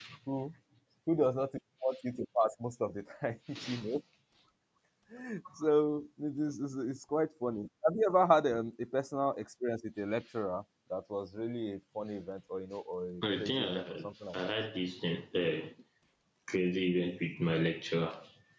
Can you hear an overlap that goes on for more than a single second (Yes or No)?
Yes